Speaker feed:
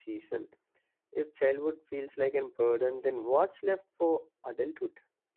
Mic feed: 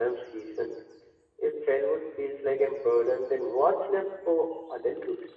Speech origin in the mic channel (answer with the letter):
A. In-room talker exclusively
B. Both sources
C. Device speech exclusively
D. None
C